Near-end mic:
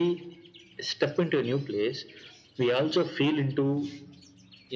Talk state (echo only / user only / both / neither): echo only